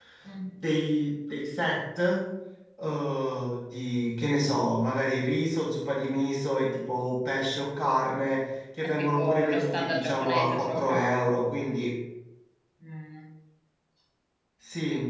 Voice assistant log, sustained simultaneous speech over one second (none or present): present